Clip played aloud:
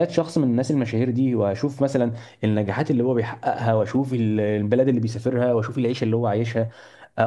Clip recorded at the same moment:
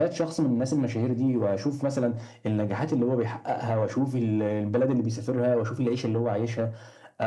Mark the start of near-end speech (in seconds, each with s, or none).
none